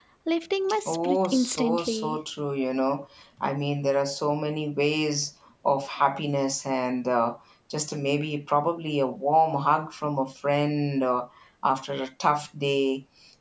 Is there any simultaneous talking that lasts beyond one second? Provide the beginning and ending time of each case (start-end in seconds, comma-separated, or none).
0.9-2.2